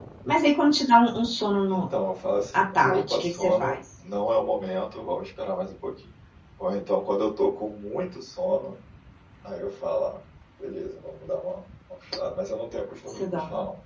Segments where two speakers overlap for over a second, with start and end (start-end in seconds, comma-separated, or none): 2.5-3.8